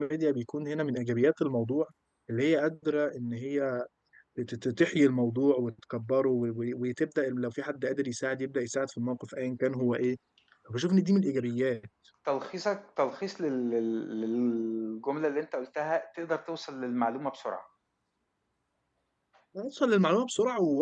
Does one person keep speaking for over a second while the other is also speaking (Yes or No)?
No